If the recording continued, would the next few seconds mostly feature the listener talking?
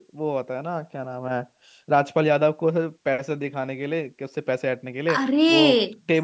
No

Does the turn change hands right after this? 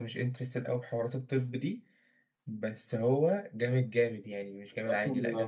Yes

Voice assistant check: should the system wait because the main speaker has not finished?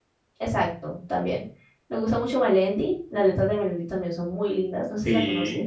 No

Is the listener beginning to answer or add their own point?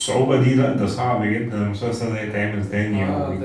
Yes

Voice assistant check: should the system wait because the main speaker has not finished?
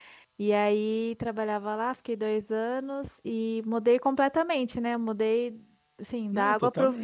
Yes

